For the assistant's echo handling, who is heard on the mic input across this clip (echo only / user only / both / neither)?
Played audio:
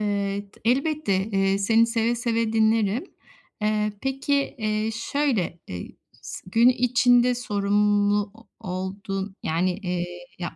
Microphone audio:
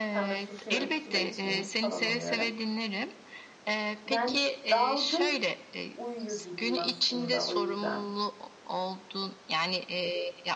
both